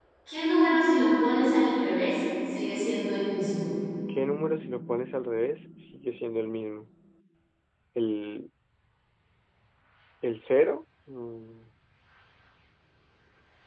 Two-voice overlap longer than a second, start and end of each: none

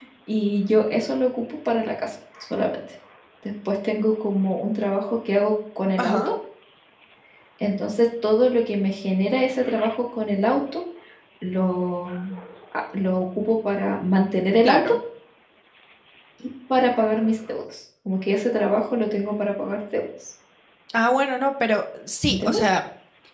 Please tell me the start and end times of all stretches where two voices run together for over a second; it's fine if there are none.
none

